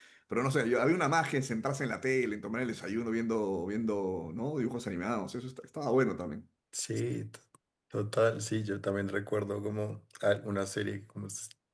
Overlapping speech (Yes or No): No